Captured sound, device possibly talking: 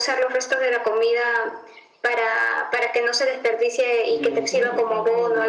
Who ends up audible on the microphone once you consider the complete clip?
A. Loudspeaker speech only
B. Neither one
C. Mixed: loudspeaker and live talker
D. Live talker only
C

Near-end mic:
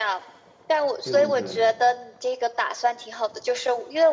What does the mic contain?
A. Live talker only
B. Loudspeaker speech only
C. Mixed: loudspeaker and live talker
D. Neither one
C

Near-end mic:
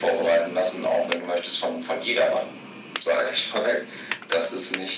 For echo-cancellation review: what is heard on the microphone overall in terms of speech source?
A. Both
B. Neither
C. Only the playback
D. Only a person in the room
C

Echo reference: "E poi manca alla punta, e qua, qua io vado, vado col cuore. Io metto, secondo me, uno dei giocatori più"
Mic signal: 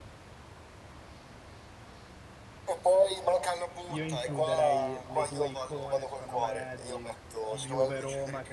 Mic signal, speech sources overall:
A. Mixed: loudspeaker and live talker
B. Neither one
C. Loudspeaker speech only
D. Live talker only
A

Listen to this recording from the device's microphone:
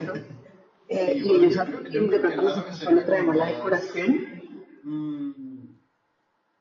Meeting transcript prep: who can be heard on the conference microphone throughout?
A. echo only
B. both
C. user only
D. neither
B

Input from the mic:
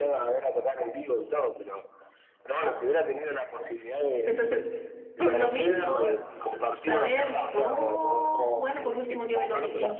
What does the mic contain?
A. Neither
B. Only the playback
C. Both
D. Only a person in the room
C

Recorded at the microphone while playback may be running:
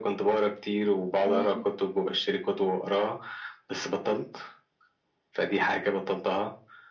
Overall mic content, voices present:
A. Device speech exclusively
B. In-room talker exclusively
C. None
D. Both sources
D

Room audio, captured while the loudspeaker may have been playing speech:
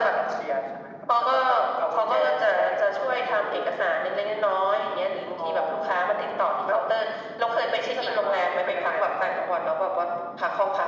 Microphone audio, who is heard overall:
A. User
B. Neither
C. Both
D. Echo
D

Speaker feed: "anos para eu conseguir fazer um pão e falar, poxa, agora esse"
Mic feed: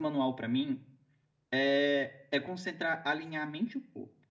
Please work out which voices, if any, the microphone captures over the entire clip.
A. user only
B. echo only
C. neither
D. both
A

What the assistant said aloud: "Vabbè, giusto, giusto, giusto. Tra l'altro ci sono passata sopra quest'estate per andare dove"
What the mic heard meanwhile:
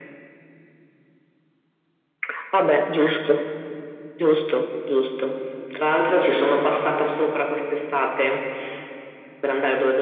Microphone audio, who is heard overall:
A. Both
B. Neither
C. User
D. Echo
D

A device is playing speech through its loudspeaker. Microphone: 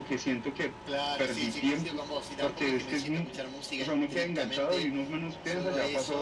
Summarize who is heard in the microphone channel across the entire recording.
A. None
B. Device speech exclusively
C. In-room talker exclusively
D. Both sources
B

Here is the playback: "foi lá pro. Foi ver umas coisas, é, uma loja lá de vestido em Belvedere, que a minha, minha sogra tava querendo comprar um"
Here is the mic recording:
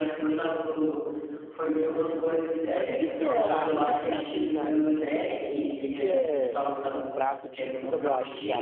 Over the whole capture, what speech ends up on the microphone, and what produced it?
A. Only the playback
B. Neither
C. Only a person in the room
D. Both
D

